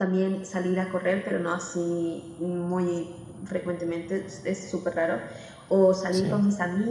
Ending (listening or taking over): listening